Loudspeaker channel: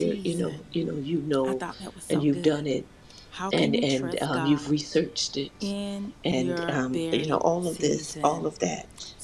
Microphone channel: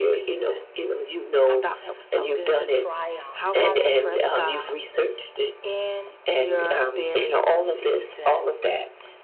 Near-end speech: present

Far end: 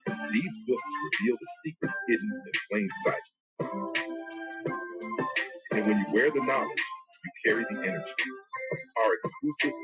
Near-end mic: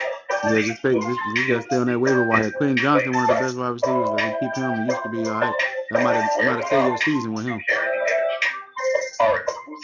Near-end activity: present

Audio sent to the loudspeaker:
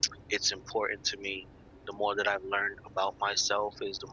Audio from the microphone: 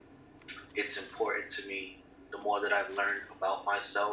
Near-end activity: none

